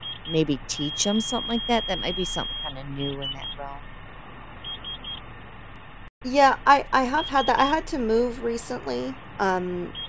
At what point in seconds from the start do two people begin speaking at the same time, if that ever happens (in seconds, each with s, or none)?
none